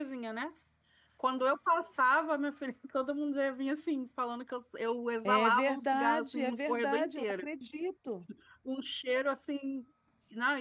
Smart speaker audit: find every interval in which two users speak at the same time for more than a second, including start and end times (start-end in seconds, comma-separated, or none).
5.2-7.5